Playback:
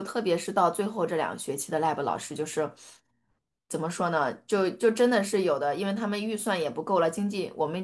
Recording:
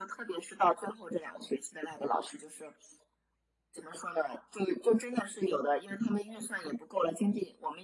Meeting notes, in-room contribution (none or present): none